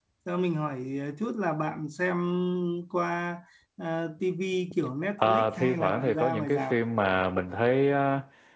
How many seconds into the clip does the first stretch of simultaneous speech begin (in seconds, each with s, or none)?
5.2 s